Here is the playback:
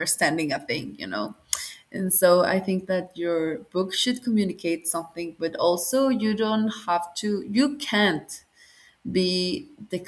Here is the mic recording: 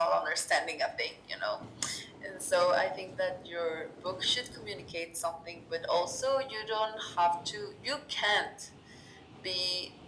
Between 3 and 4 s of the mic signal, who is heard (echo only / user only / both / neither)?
echo only